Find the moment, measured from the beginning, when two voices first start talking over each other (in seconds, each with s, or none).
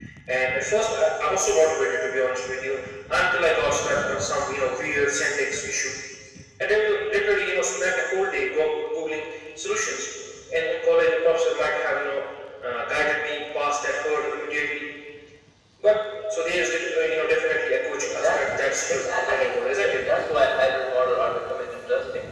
18.0 s